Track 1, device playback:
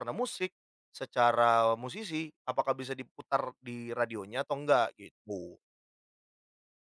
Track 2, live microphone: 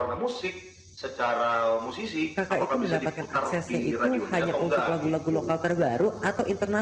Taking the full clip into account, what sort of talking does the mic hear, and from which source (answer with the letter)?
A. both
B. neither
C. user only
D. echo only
A